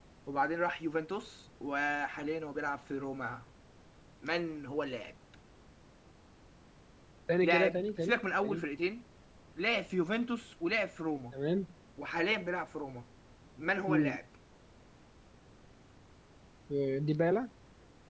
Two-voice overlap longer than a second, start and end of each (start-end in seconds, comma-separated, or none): 7.4-8.6